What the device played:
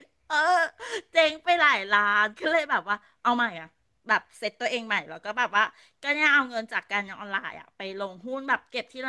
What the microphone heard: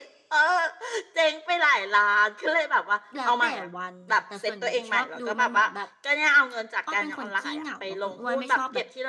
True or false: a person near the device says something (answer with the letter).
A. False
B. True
B